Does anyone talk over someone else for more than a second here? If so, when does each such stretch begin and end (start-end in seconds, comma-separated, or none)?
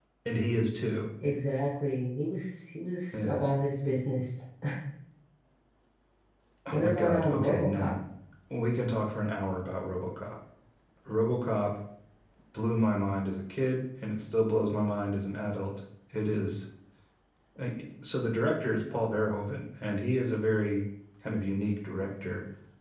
6.7-8.0